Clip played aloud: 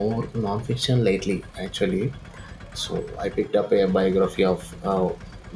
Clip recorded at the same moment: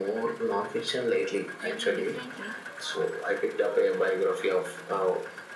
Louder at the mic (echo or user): echo